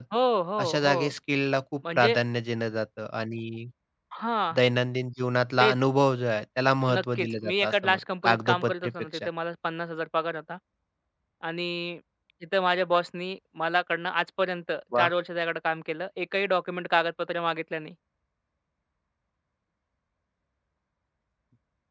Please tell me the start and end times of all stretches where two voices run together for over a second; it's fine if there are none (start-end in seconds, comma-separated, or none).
7.0-9.3